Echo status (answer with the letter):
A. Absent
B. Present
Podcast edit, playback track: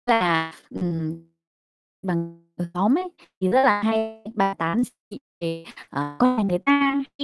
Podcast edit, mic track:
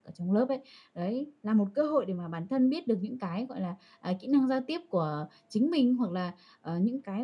A